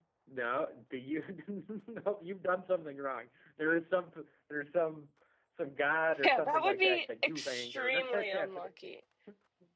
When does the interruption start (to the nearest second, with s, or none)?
6 s